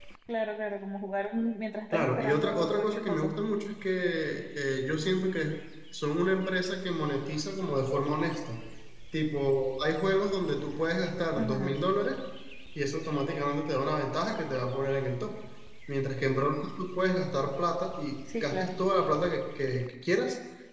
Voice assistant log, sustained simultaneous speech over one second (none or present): present